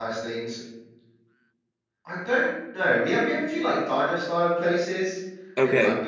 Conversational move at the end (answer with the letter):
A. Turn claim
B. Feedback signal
B